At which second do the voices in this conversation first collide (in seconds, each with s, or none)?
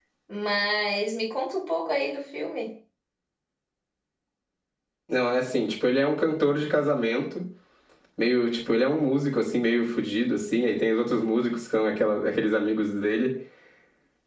none